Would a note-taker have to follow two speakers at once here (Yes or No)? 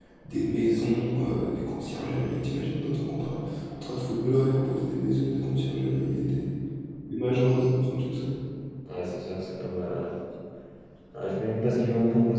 No